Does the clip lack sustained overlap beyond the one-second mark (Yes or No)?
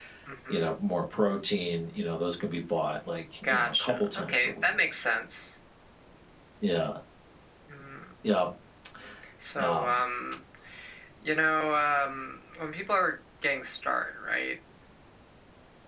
No